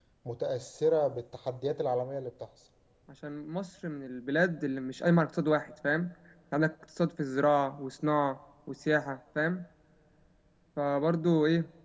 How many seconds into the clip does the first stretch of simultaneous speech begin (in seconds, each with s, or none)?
none